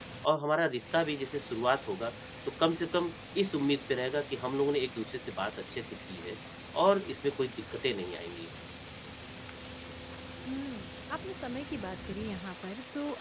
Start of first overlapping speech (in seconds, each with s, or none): none